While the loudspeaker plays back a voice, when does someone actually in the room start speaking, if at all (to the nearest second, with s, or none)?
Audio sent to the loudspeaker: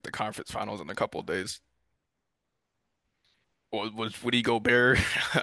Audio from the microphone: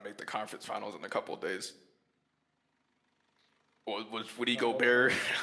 4 s